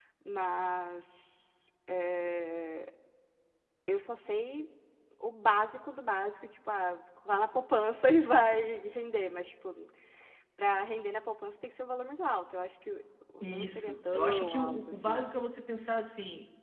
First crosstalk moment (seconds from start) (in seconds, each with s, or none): 13.4 s